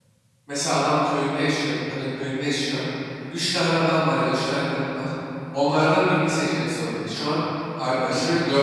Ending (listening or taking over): listening